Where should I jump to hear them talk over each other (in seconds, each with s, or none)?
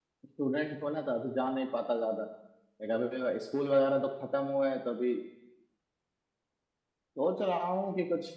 none